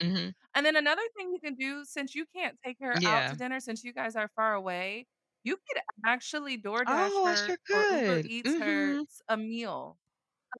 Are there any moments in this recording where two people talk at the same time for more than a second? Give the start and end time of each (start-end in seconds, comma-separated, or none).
6.9-9.0